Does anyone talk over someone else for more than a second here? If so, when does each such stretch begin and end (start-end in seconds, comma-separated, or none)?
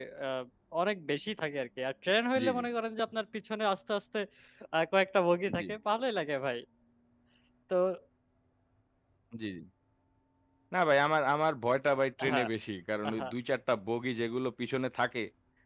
none